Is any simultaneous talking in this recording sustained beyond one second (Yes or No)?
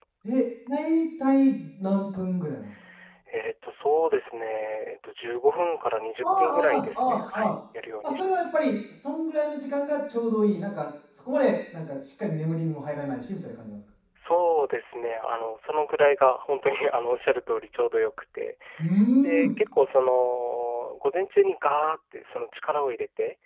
Yes